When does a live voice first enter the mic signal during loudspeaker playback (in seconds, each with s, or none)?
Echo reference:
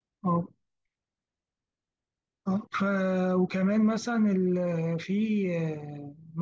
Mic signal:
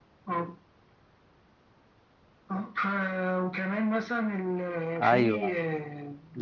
5.0 s